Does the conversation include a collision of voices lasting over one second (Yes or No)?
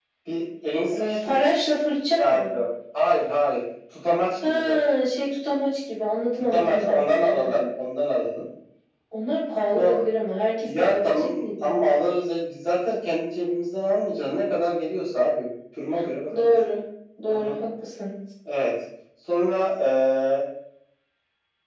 Yes